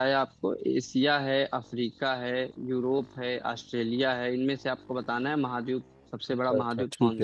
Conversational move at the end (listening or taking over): taking over